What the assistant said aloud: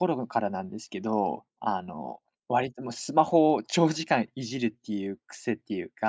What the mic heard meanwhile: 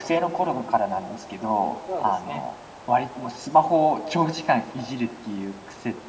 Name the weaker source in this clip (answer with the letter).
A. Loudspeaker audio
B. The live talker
B